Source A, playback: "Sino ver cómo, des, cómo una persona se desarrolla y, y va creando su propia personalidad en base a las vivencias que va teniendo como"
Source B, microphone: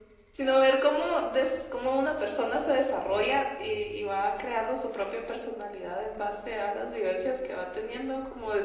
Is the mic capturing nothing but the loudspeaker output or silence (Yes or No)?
Yes